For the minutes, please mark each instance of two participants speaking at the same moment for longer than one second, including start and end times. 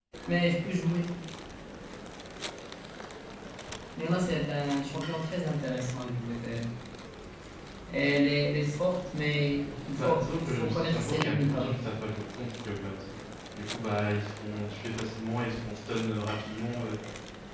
9.9-11.8

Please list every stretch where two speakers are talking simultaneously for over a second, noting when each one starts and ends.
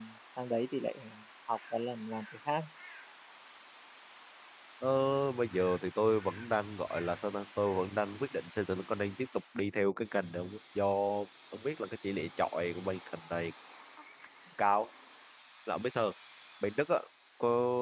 none

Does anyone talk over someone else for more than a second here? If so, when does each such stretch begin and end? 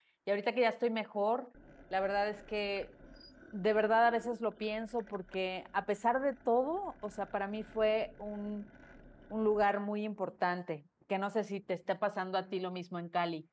none

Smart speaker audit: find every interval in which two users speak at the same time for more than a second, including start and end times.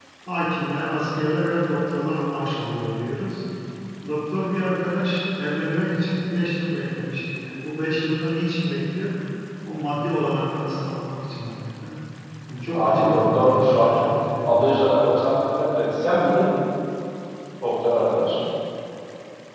12.7-14.0

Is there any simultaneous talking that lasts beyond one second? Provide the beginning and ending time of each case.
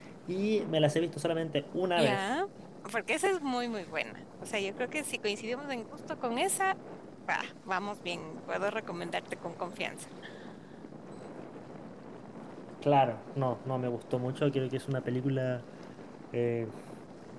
none

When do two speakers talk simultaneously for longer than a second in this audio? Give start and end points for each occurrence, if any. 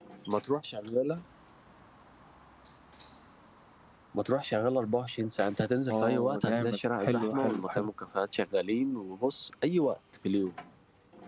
5.9-7.9

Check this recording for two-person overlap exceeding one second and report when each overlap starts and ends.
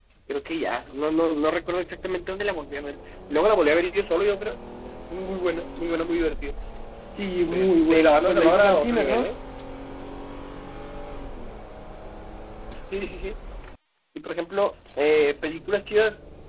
7.4-9.3

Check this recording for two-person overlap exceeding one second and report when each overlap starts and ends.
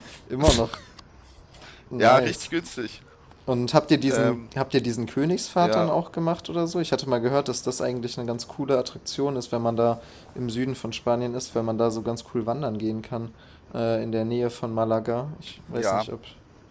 none

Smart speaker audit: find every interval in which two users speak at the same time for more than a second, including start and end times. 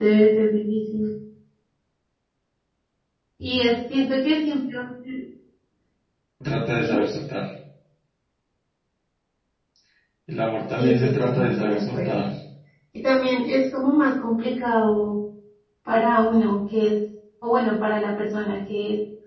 10.8-12.2

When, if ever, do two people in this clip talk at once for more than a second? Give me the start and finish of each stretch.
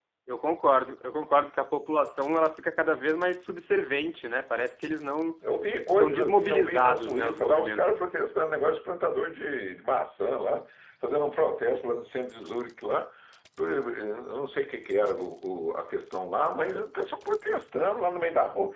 6.0-7.9

